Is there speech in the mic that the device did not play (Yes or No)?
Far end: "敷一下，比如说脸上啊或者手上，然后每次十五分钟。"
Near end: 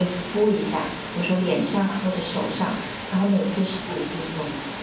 No